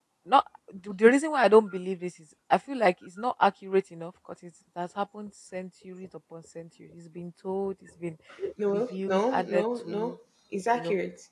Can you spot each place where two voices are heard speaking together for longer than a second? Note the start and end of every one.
8.7-10.1

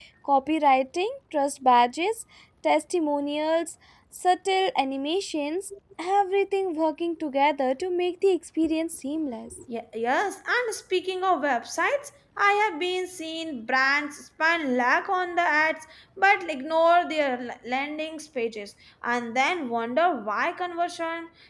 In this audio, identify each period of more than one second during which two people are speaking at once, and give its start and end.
none

